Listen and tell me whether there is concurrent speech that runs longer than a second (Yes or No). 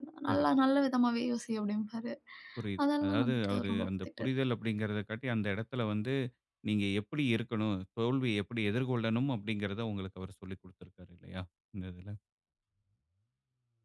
Yes